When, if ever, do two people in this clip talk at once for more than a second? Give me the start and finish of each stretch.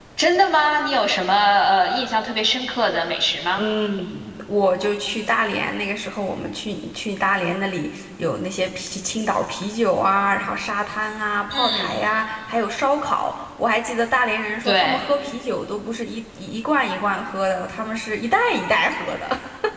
none

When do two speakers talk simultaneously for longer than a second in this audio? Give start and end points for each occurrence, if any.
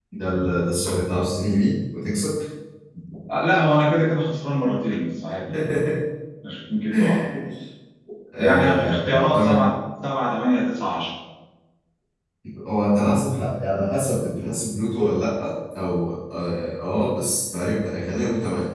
8.4-9.6

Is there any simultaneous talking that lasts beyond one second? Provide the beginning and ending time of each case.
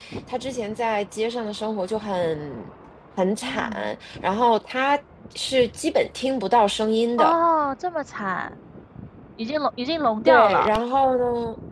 none

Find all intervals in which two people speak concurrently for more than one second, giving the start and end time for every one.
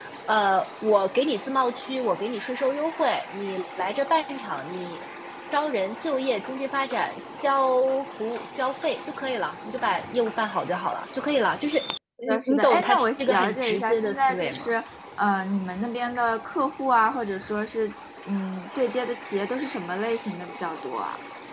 12.2-14.7

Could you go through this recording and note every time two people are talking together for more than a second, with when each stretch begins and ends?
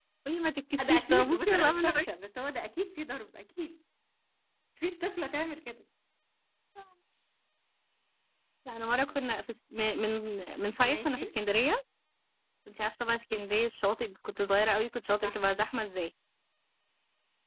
0.8-2.1

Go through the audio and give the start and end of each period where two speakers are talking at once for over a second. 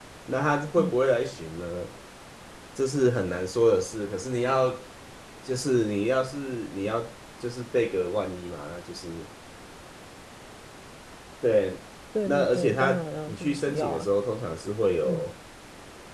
12.3-14.1

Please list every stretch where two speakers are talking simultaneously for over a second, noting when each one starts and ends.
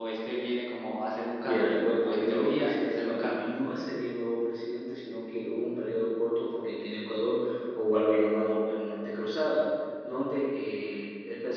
1.4-3.5

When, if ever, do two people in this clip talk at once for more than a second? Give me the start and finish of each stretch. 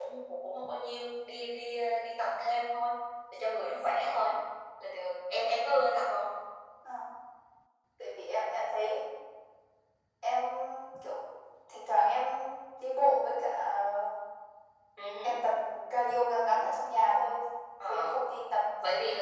none

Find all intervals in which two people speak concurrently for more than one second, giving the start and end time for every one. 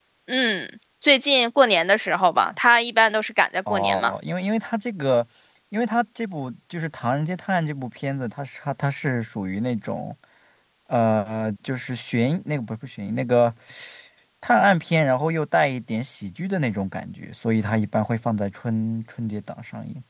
none

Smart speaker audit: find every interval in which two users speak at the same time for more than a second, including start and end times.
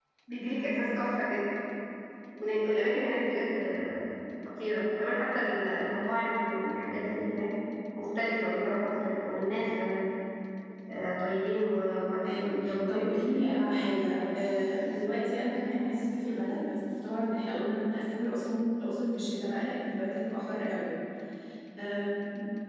12.2-13.6

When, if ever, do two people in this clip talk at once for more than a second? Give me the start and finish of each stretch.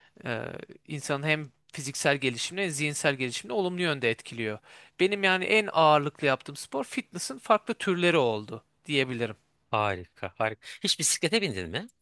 none

